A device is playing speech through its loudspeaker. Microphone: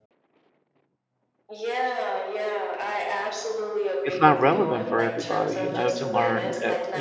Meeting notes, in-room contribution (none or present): present